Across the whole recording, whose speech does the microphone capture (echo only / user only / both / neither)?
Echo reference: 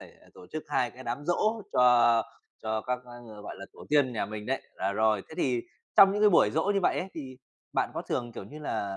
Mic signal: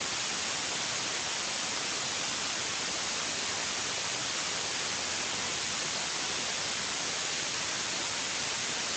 neither